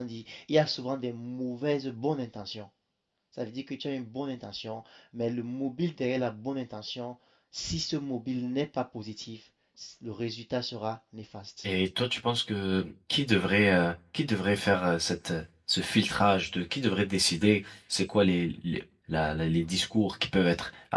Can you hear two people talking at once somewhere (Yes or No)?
No